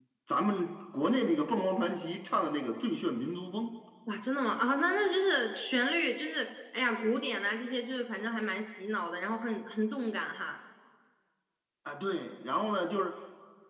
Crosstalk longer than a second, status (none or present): none